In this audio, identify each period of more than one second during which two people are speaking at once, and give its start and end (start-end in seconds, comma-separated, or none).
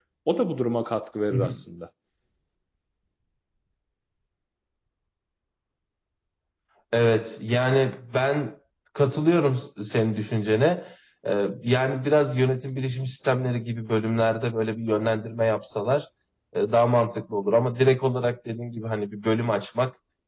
none